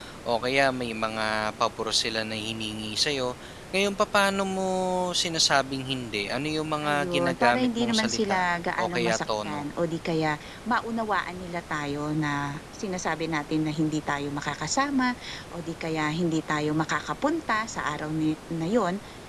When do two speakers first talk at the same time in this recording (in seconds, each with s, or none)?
6.8 s